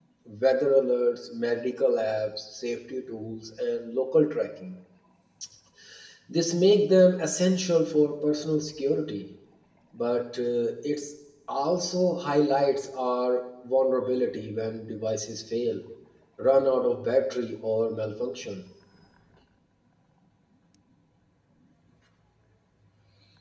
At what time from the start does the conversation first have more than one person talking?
none

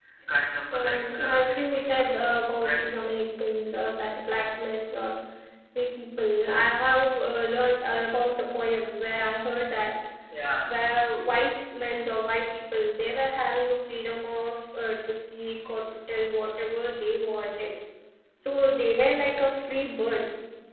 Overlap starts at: 0.7 s

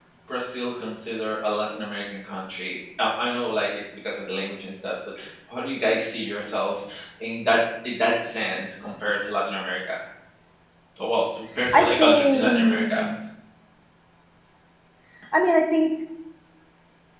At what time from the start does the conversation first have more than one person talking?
11.7 s

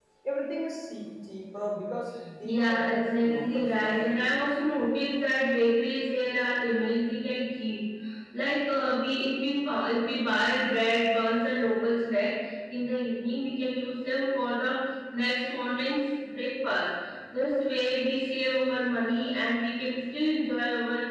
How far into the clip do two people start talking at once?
2.4 s

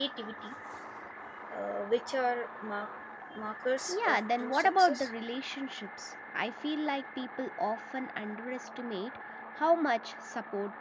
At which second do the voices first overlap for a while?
3.9 s

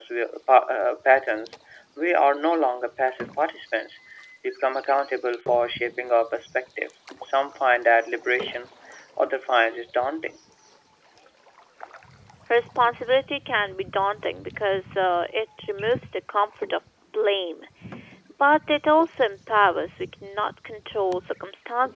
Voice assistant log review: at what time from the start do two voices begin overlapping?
none

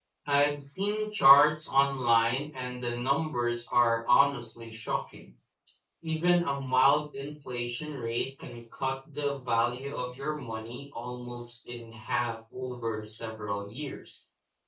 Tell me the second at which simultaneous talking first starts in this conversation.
none

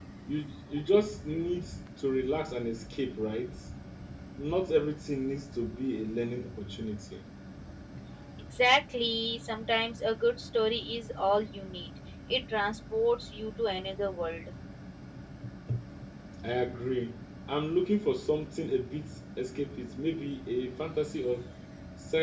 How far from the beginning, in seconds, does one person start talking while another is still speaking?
none

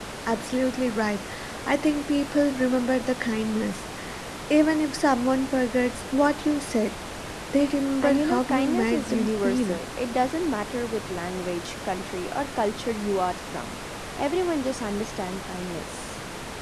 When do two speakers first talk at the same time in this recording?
8.0 s

